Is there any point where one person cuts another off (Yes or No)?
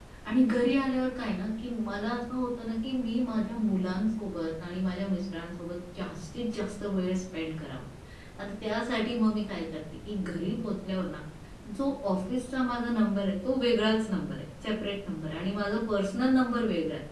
No